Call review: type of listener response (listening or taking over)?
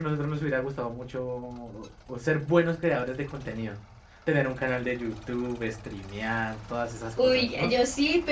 taking over